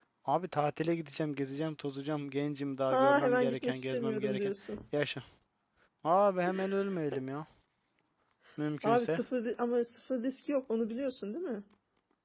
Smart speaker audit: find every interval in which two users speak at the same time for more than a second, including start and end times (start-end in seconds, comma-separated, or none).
2.9-4.5